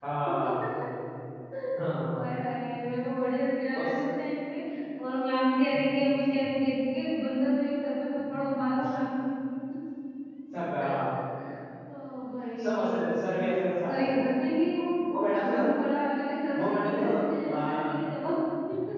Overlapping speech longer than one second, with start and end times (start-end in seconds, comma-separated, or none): 16.6-18.0